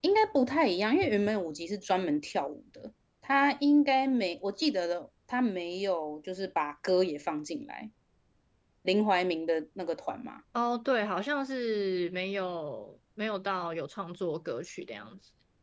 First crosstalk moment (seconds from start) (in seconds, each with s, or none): none